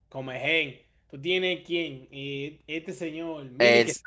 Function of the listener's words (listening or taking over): taking over